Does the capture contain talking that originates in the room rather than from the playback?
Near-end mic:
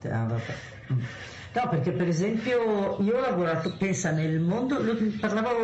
No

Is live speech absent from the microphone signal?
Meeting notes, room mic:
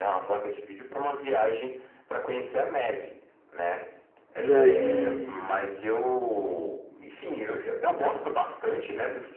No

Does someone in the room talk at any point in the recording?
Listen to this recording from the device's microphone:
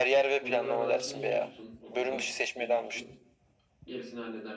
Yes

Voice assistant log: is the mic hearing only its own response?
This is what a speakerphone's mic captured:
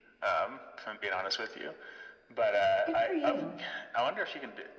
No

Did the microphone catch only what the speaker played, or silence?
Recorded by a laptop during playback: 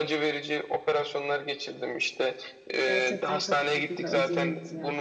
No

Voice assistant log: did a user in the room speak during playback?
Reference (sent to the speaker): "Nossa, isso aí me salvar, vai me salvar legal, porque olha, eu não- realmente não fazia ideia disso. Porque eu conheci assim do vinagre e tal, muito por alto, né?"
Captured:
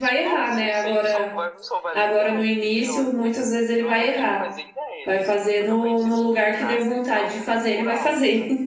Yes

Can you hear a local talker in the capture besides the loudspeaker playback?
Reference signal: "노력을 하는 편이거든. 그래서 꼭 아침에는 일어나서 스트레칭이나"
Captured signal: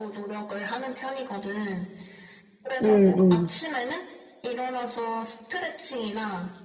Yes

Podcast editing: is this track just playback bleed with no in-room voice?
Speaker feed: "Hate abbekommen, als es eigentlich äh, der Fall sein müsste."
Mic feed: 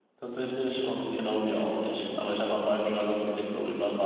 No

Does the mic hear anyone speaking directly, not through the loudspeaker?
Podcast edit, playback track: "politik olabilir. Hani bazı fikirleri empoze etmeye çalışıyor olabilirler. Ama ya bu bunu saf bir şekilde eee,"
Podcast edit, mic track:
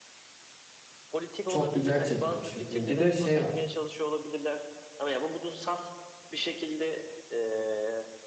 Yes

